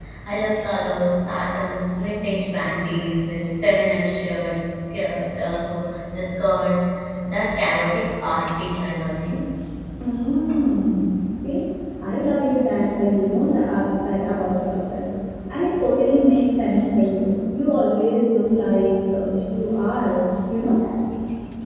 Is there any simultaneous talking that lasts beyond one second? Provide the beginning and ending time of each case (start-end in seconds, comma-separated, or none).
none